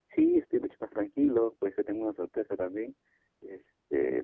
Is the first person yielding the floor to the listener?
No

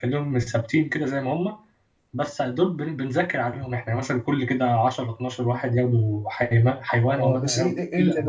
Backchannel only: No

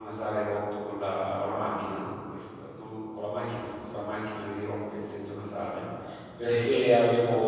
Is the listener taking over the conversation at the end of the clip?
No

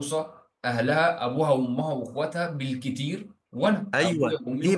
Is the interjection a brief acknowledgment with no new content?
No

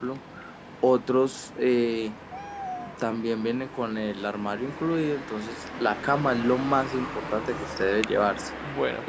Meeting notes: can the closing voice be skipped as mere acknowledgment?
No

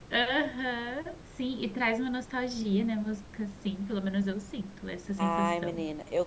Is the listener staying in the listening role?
No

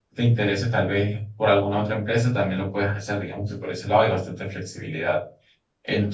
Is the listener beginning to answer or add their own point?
No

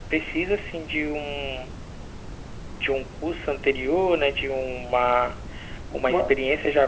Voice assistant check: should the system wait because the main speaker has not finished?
Yes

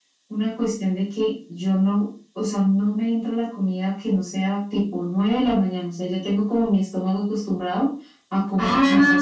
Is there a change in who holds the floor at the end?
Yes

